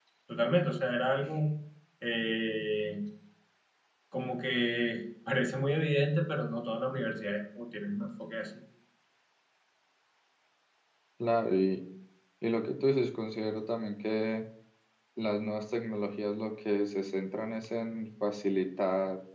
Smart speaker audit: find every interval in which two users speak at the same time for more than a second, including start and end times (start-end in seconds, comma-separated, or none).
none